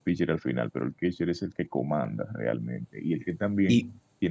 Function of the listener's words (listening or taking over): listening